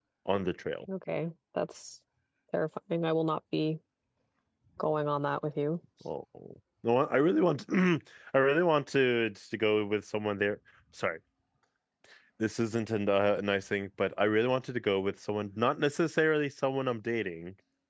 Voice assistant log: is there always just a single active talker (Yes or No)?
Yes